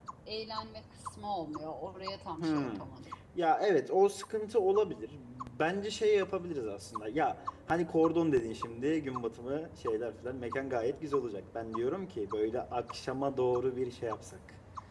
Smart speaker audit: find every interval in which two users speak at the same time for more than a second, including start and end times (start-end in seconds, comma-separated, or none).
none